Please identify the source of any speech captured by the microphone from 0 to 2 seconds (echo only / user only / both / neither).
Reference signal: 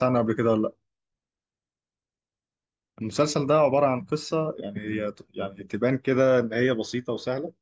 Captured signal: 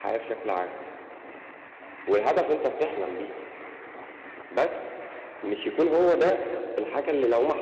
user only